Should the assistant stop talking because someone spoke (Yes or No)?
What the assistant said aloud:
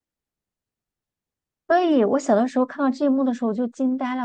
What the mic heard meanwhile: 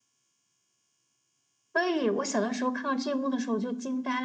No